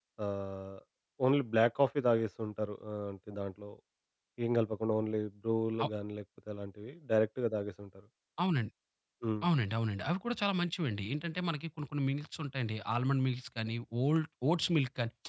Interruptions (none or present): none